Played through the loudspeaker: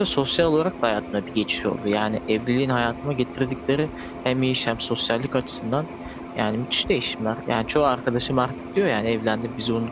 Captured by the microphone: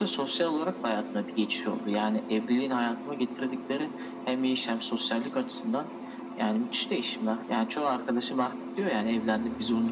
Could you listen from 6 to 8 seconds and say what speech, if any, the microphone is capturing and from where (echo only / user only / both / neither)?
echo only